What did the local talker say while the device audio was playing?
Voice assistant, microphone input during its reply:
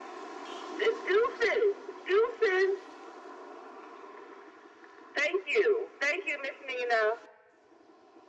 none

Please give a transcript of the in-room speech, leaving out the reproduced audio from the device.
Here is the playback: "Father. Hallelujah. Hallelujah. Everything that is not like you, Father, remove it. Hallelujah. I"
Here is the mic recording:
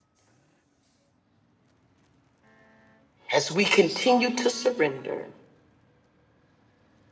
as we continue to surrender.

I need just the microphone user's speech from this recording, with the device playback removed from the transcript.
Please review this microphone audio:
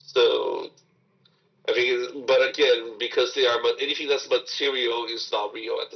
none

